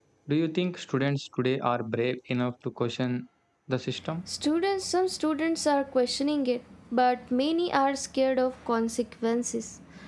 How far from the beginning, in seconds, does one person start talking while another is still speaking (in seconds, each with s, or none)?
none